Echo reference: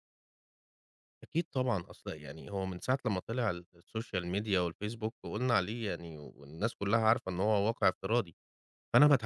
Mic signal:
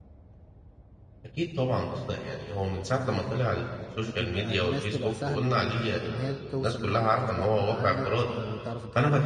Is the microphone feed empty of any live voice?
No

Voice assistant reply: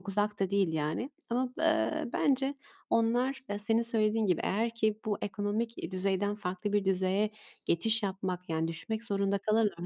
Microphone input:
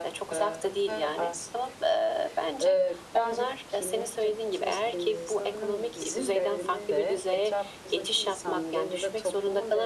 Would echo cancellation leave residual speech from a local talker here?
Yes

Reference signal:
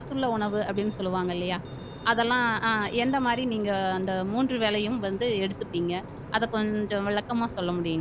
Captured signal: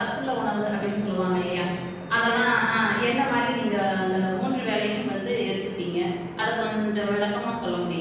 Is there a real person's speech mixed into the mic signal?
No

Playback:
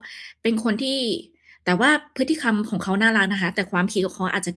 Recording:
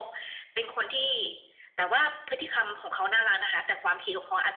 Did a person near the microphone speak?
No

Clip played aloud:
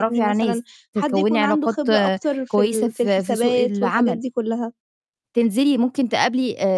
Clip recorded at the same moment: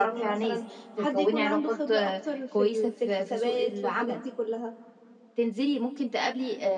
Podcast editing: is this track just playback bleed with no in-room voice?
Yes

